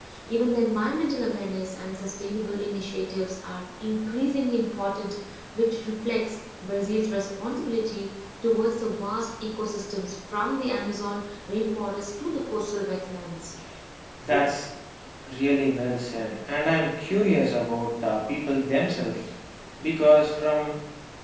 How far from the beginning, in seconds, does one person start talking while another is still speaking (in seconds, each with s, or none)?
none